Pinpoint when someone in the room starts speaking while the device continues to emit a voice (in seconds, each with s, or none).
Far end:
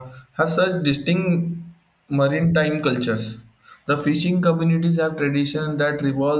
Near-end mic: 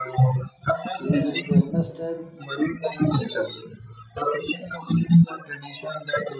1.0 s